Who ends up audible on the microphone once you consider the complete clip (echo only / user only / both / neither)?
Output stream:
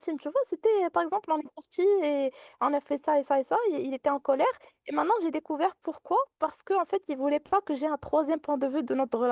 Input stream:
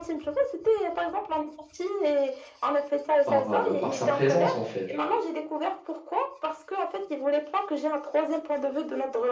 both